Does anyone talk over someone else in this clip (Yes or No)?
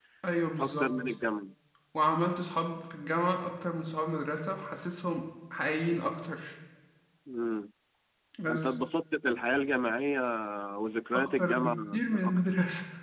Yes